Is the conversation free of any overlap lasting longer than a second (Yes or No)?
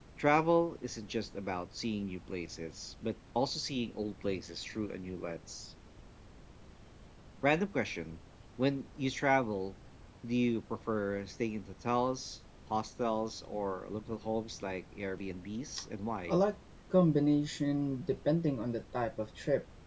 Yes